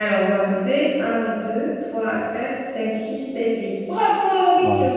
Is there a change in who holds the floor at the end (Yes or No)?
Yes